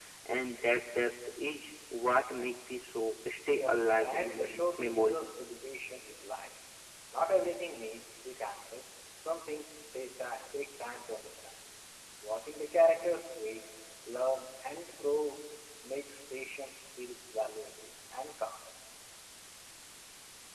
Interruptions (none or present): present